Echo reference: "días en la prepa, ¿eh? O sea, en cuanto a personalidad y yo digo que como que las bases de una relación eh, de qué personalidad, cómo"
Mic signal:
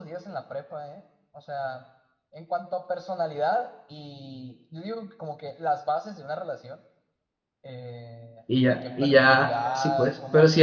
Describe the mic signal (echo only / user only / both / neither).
both